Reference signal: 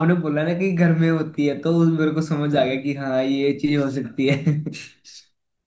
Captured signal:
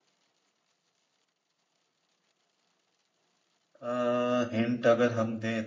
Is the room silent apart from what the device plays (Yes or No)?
No